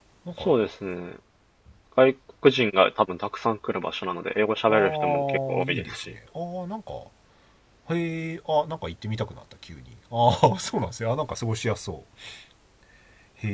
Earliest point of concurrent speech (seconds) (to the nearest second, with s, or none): 5 s